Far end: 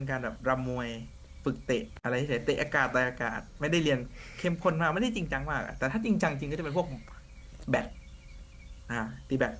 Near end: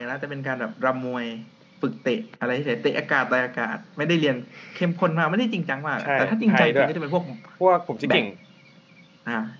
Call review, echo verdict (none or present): present